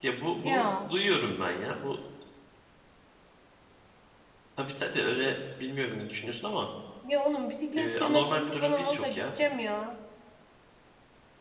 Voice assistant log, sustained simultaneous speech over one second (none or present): present